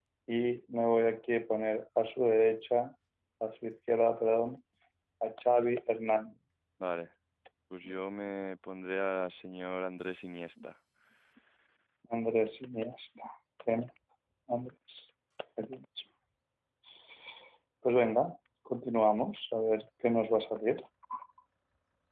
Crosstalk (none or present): none